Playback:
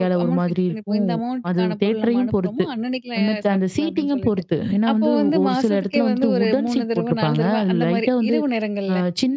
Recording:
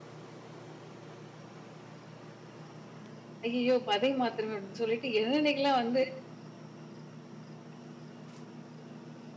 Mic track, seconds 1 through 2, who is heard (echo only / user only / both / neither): neither